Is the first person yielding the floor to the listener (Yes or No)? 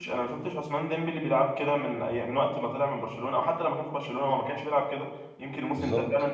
No